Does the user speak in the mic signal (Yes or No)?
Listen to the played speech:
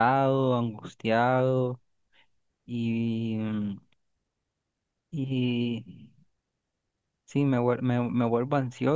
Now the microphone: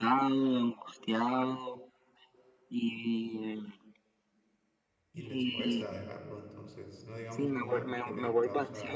Yes